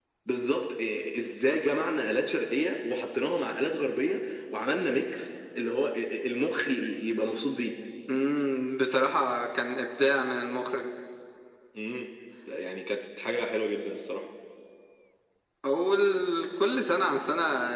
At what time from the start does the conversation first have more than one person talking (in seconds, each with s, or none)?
none